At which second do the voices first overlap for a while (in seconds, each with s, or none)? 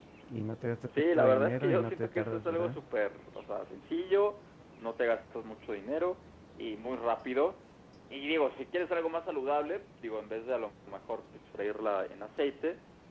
1.0 s